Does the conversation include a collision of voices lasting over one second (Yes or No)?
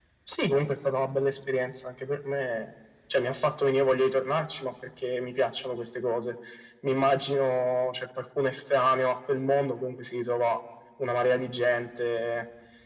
No